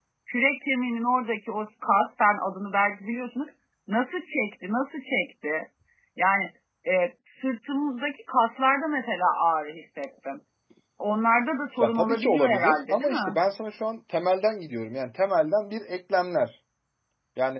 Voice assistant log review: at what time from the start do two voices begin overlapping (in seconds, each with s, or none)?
11.8 s